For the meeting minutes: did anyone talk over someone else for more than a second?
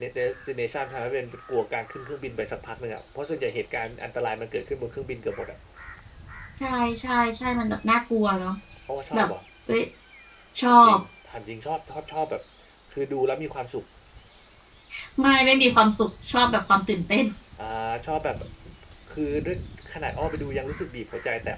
No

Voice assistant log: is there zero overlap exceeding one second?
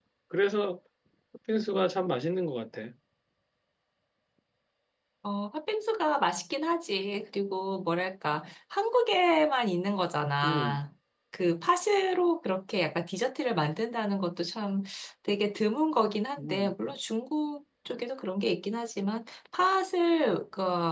Yes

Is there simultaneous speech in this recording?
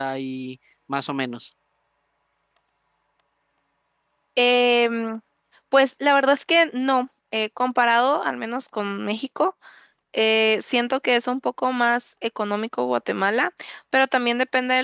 No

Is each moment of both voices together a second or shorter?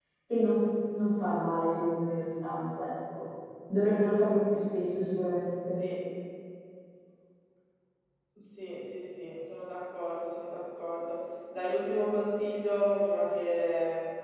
Yes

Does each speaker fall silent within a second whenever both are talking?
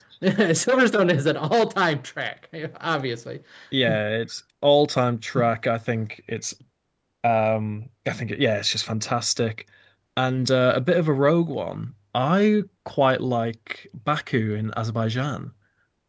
Yes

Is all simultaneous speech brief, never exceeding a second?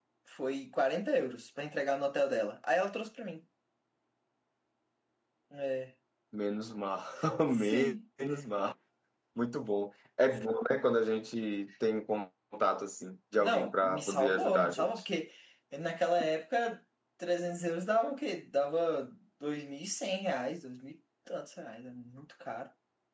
No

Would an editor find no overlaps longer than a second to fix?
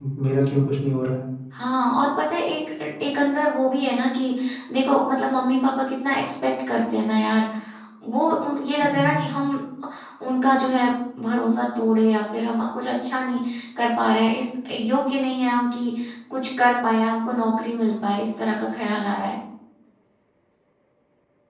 Yes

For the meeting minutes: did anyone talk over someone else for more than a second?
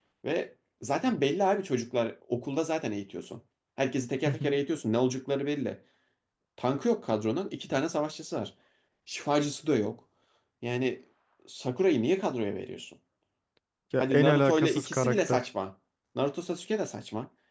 Yes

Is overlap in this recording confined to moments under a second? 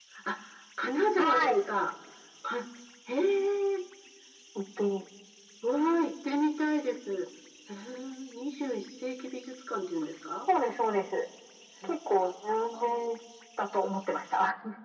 Yes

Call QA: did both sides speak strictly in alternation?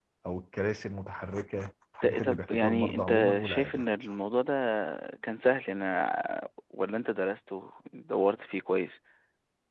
No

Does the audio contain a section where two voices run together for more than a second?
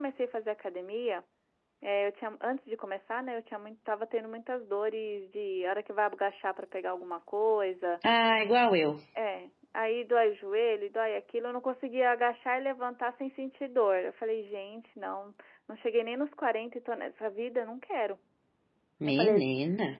No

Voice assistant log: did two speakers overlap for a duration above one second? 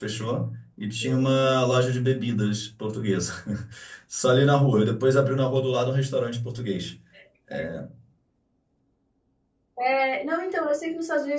No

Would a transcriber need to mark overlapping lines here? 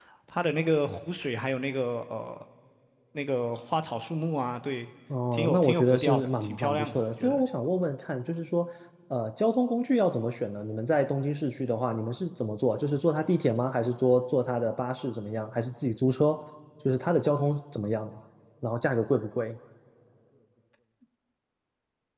Yes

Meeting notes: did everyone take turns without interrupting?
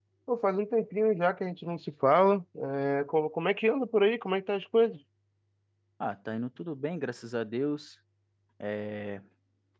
Yes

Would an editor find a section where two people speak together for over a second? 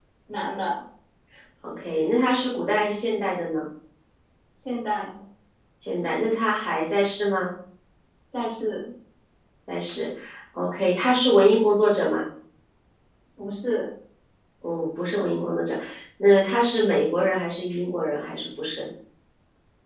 No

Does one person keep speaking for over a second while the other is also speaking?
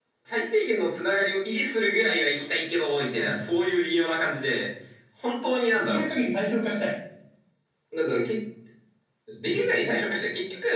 No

